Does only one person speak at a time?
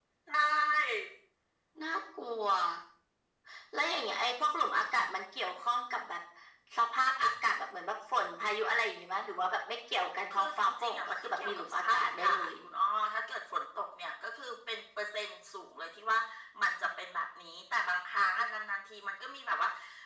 No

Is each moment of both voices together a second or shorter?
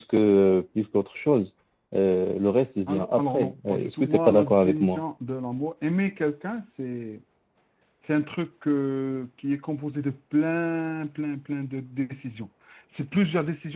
No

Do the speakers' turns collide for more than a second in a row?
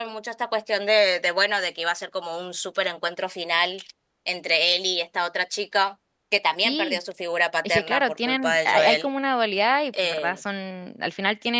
Yes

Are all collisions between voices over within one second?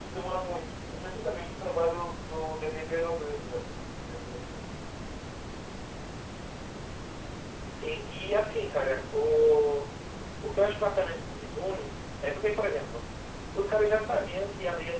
Yes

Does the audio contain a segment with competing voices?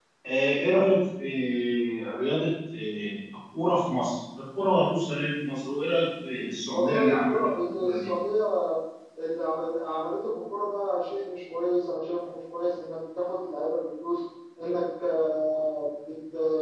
Yes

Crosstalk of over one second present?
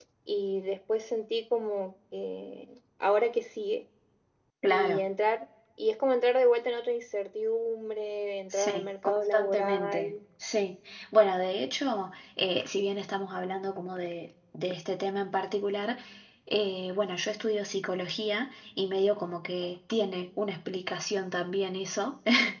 Yes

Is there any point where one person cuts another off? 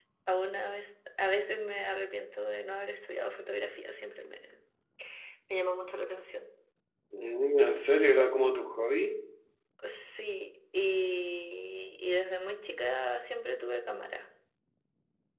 No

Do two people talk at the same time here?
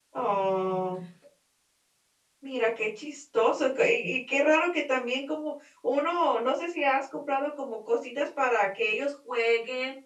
No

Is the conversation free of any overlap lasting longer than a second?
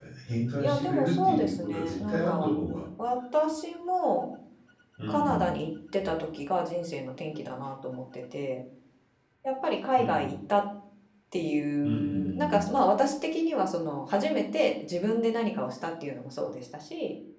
No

